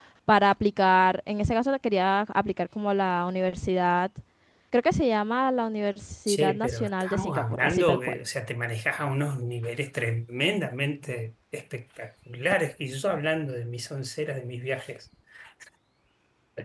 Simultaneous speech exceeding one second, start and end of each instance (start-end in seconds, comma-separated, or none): 6.3-8.2